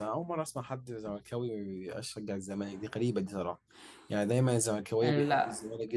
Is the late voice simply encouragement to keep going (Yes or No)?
Yes